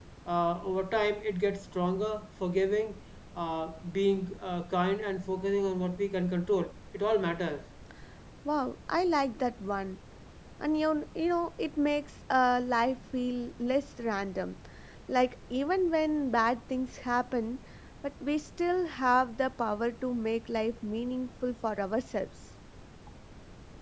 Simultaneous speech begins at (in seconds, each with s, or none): none